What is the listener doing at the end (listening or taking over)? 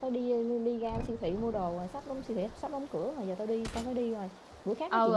taking over